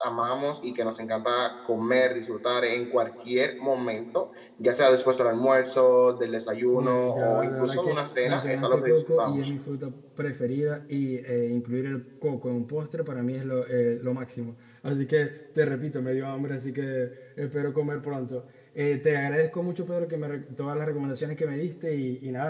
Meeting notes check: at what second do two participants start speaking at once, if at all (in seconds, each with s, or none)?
6.7 s